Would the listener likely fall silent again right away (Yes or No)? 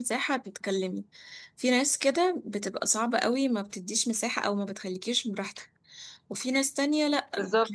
Yes